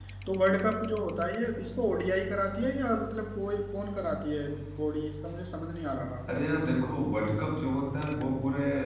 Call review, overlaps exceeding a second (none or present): none